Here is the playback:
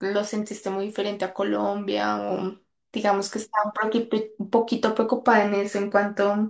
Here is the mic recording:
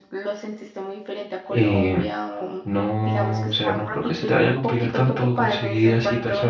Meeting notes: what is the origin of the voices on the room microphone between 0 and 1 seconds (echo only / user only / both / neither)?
echo only